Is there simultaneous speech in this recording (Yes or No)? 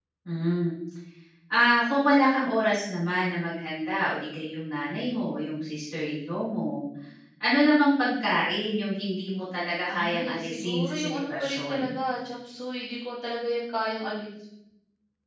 Yes